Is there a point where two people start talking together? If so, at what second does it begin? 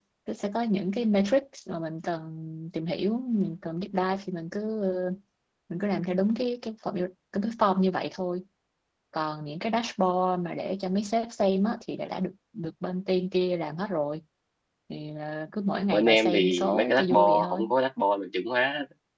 15.9 s

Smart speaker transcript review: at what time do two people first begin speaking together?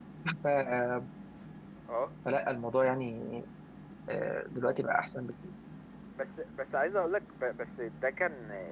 none

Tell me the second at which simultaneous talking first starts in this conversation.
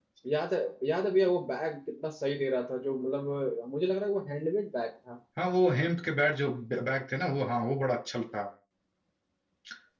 none

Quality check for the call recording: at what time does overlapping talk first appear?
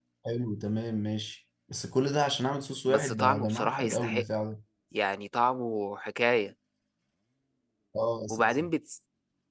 2.9 s

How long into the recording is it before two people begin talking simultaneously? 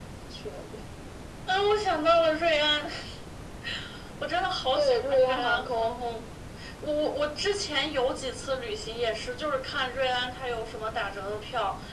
4.8 s

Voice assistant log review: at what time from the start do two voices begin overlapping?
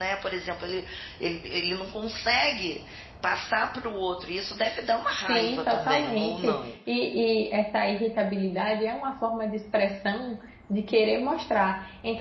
5.3 s

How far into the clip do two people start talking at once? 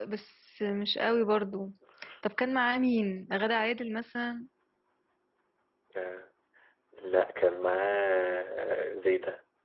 none

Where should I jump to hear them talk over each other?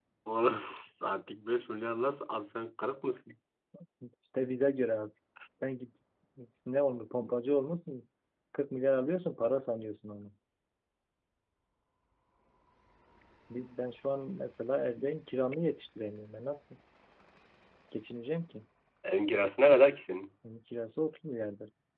none

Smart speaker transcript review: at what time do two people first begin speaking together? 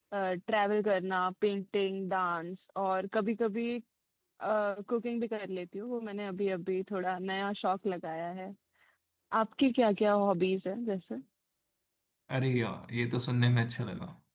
none

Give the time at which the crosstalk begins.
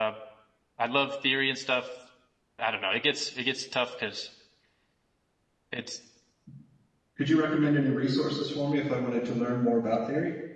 none

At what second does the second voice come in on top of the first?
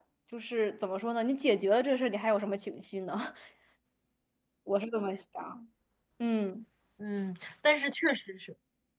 none

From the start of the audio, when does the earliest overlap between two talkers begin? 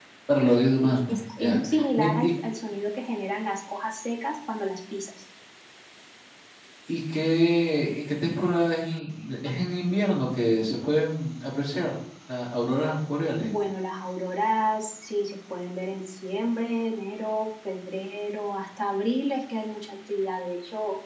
0.8 s

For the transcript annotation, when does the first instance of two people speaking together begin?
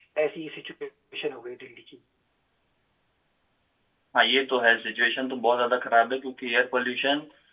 none

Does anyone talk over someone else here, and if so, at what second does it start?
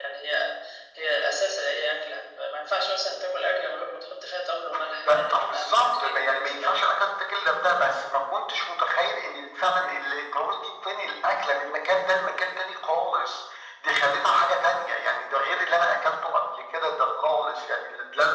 4.7 s

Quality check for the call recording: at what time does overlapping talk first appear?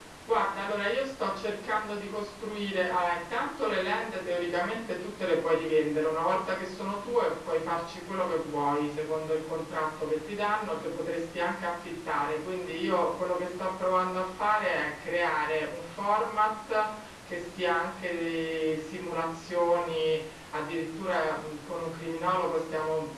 none

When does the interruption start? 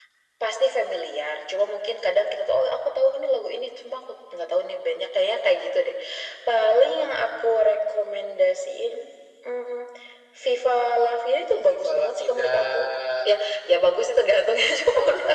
11.5 s

